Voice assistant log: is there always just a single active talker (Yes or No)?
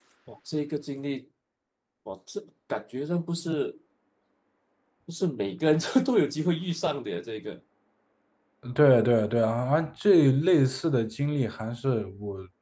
Yes